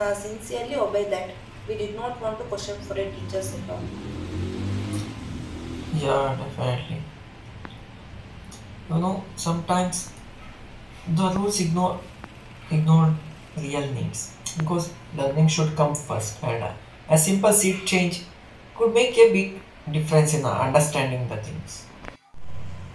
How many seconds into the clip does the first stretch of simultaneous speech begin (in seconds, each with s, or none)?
none